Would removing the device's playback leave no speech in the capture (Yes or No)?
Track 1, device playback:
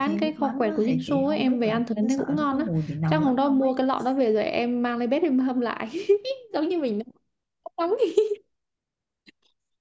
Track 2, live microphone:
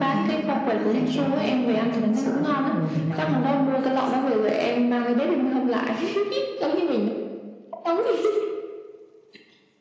Yes